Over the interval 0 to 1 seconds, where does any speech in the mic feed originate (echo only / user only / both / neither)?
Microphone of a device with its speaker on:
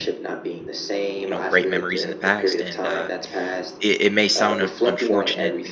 echo only